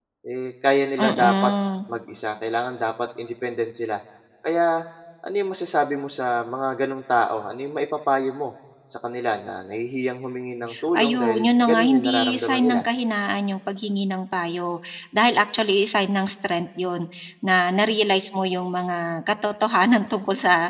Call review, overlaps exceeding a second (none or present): present